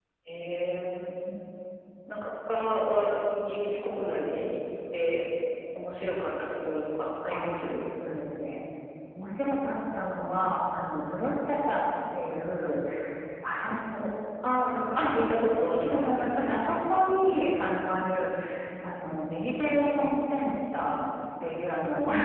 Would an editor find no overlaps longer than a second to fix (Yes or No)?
Yes